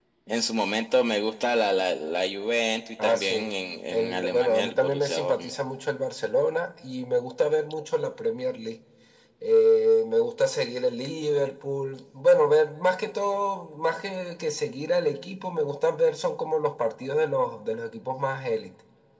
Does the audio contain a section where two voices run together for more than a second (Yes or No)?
Yes